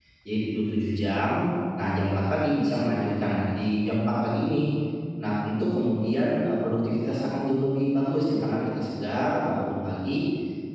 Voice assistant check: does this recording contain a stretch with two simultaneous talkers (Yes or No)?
No